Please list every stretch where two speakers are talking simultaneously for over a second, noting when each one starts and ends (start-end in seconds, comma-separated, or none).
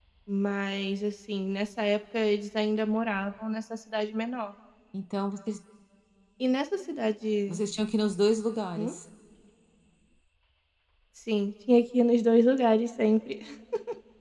none